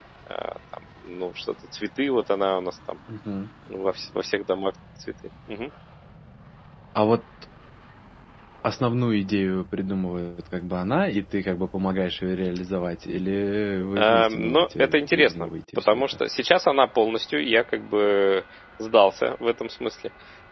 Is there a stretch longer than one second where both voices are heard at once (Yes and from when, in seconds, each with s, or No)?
Yes, from 14.0 s